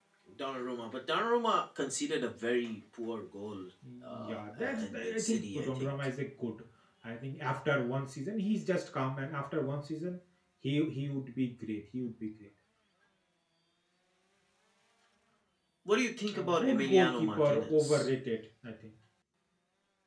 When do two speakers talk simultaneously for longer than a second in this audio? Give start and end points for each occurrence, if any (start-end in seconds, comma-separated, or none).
4.0-5.9, 16.3-18.1